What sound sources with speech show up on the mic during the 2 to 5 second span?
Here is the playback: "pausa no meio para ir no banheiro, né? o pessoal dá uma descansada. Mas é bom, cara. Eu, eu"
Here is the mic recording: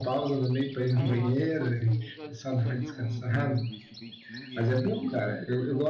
both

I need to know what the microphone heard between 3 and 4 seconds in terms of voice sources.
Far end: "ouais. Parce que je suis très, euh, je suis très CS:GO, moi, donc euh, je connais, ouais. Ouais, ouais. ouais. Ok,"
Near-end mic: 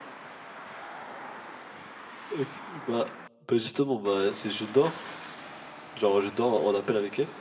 user only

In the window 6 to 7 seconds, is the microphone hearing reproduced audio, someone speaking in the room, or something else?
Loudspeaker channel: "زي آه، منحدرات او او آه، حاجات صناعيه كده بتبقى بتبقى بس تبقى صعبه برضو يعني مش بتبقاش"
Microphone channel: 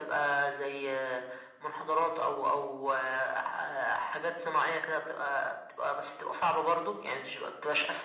echo only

